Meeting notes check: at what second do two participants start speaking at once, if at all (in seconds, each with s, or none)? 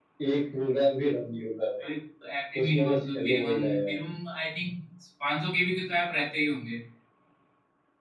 2.6 s